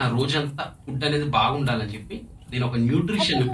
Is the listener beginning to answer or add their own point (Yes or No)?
No